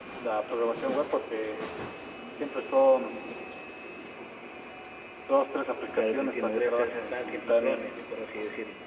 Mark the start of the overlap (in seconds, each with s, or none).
6.0 s